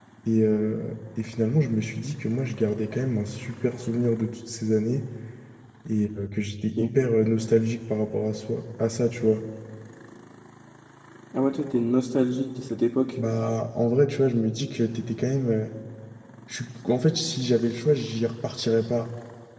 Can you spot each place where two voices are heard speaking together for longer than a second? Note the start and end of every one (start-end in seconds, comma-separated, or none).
none